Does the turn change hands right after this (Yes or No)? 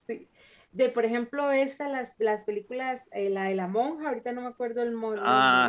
Yes